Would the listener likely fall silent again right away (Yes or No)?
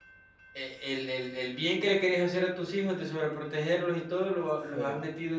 Yes